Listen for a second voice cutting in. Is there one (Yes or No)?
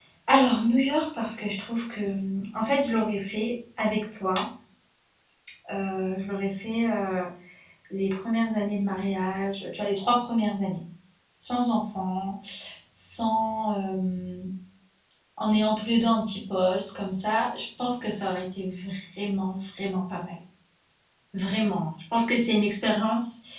No